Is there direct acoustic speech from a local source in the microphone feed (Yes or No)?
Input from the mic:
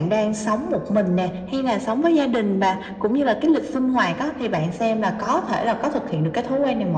No